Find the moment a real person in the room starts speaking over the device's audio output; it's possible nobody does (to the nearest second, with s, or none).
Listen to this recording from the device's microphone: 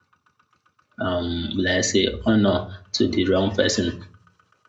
1 s